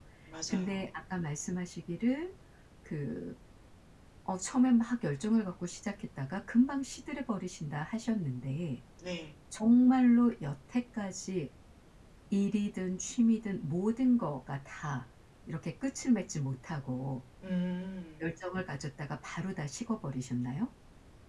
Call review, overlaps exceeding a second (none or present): none